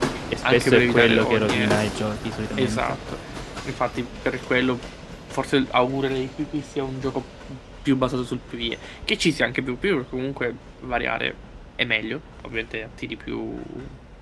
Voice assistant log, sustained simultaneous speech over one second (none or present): present